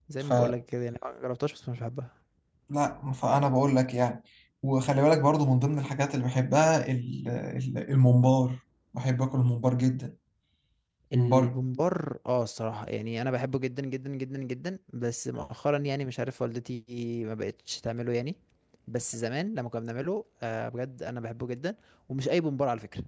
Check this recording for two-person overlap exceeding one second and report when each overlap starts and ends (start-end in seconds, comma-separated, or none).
none